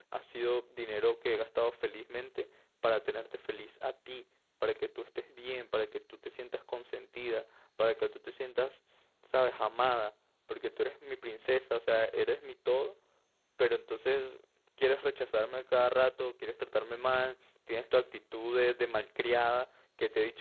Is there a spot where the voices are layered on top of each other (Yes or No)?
No